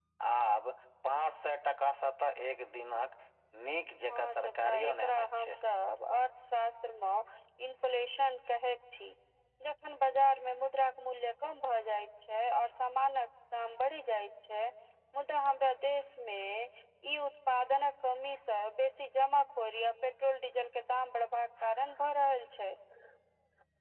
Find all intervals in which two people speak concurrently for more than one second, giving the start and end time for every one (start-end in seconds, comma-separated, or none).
4.1-5.6